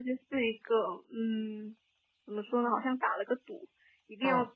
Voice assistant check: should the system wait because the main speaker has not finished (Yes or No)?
Yes